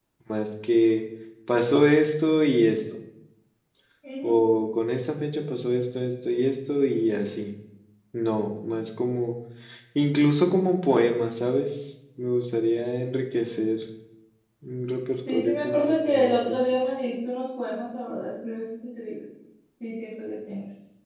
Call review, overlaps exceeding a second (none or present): present